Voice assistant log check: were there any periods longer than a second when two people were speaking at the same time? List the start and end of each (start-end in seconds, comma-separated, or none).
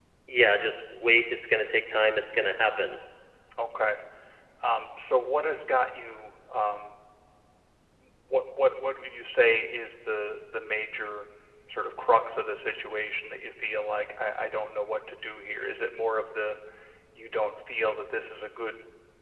none